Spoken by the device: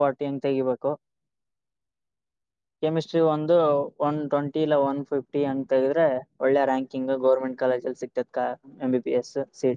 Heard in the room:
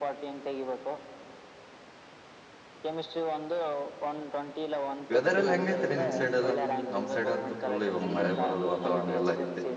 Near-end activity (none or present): present